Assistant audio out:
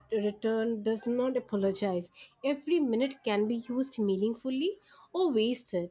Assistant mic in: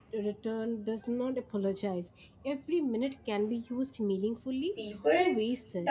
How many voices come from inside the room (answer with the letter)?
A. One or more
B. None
A